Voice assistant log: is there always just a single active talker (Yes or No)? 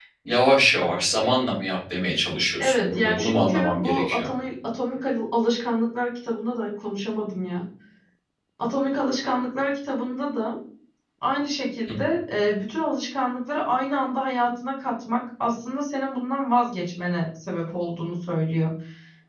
No